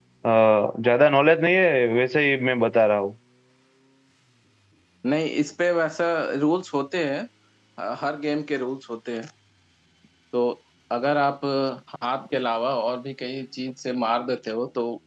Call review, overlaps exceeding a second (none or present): none